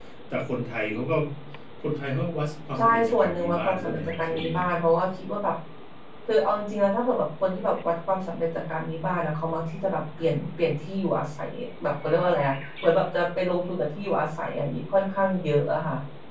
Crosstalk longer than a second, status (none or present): present